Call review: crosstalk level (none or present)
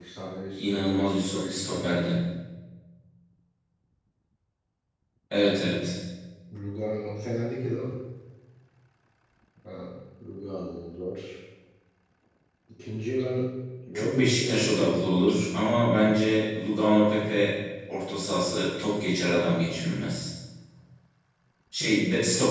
present